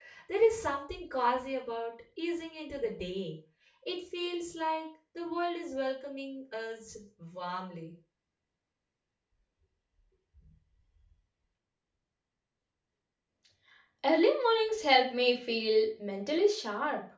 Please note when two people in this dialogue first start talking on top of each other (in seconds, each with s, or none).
none